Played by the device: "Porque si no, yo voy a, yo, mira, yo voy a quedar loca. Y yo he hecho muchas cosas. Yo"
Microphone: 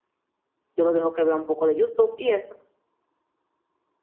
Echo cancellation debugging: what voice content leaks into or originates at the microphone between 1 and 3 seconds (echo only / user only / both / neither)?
user only